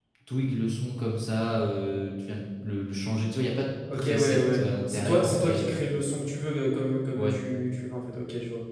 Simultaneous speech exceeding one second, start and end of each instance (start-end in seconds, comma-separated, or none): 3.9-5.7